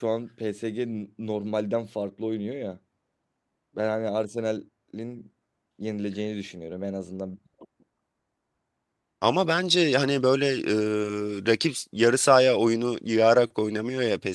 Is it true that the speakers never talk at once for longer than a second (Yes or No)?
Yes